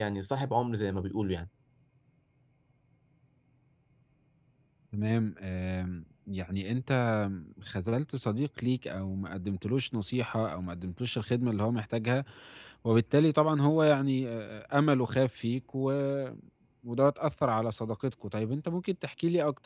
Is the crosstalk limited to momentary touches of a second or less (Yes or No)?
Yes